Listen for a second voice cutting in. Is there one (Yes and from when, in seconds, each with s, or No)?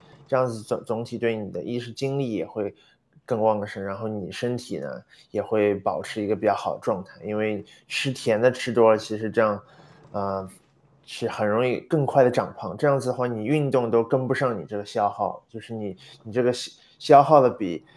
No